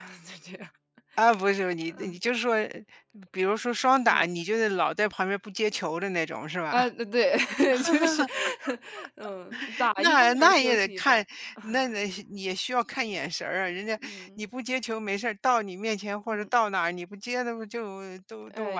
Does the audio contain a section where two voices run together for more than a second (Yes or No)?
Yes